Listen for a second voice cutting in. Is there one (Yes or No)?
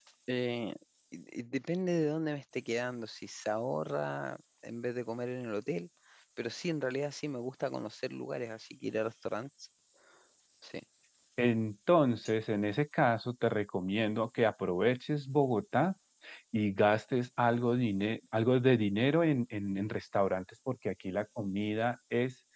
No